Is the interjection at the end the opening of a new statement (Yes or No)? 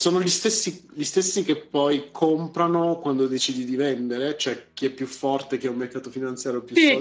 Yes